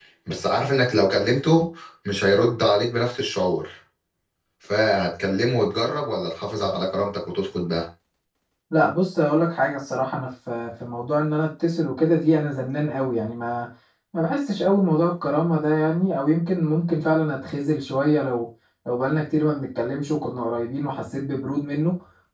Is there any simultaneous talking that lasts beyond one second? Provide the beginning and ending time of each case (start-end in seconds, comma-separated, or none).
none